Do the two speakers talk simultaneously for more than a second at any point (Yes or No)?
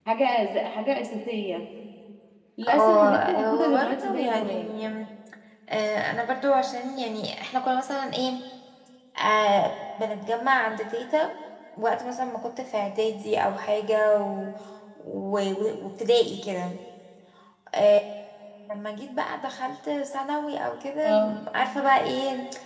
Yes